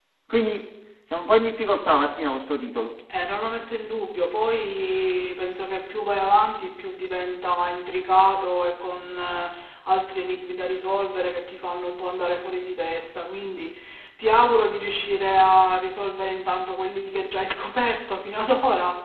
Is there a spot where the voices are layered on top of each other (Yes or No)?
No